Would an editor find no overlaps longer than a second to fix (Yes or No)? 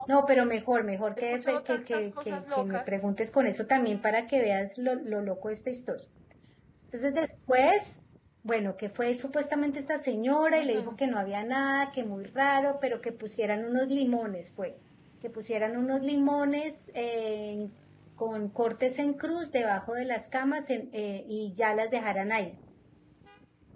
No